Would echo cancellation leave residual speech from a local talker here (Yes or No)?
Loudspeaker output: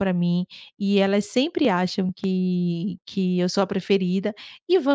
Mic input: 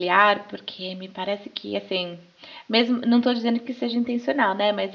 Yes